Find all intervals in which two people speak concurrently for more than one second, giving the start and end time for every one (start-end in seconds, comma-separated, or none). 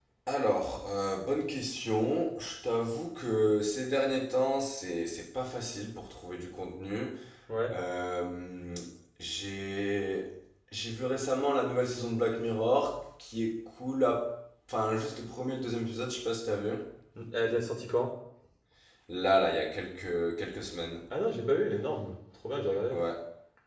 none